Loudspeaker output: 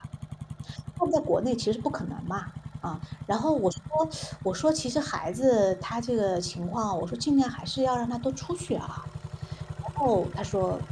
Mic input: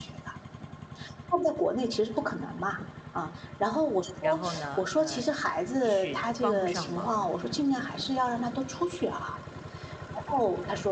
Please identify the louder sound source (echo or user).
echo